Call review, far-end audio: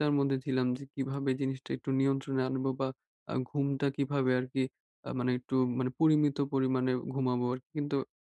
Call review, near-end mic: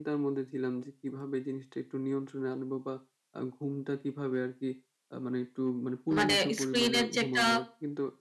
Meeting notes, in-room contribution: present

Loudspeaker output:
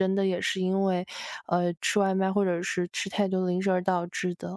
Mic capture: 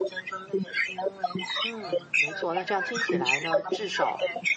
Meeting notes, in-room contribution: present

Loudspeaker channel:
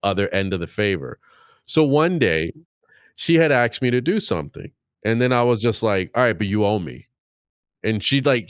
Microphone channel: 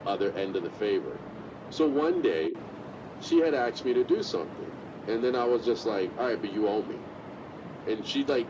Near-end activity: none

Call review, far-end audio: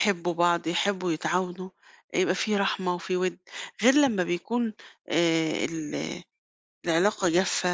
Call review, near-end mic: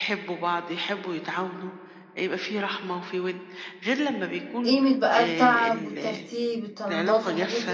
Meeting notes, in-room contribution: present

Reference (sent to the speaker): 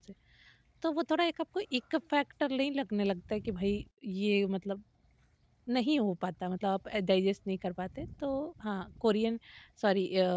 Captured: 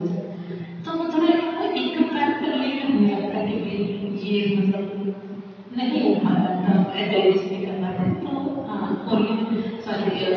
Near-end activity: none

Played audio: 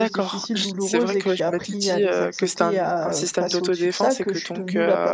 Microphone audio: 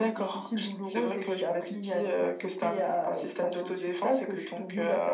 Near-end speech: none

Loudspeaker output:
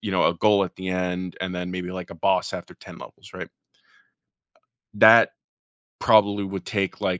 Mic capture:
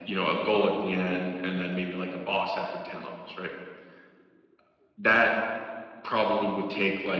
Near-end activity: none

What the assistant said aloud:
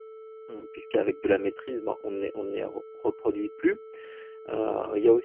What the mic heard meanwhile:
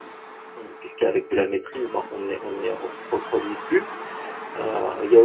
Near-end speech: none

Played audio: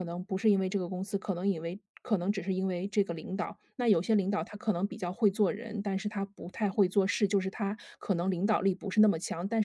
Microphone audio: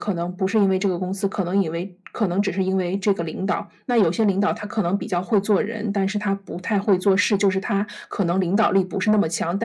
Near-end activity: none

